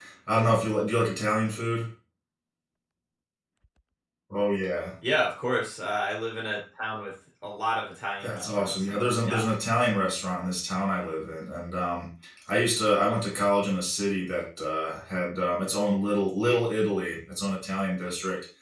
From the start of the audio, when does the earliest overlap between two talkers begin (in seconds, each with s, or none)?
8.2 s